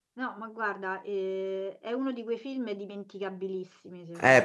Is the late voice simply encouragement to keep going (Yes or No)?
No